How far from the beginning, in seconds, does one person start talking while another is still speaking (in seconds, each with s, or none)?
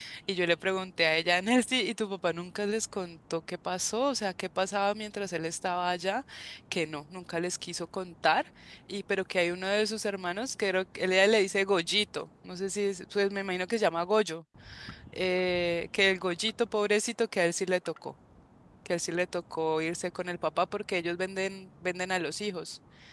none